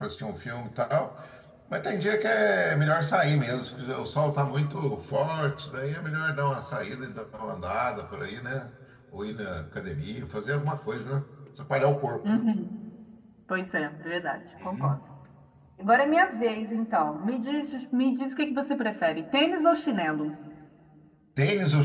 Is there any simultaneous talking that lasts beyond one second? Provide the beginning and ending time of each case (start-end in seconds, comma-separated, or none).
none